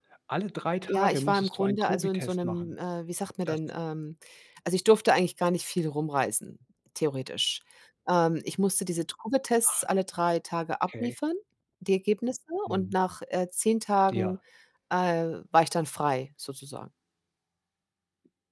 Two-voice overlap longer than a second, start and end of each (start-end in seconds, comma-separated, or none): 0.9-2.7